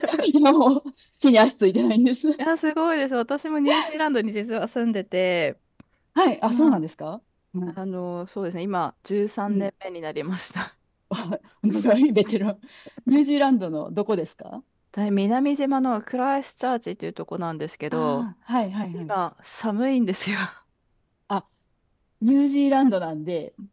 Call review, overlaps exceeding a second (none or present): none